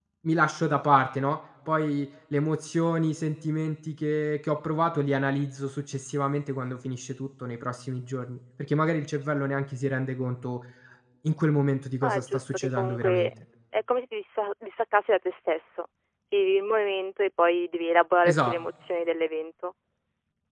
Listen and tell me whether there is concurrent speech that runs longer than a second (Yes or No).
Yes